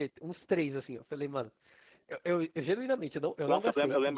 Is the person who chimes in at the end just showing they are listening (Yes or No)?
No